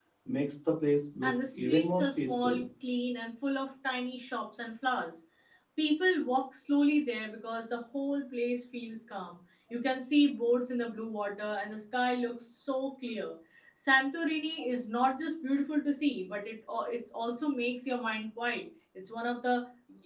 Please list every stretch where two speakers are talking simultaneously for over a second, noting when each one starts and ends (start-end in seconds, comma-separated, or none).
1.2-2.6